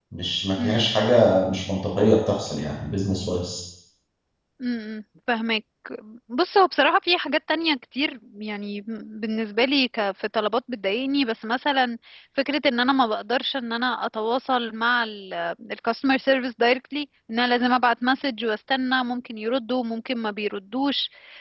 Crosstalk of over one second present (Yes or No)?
No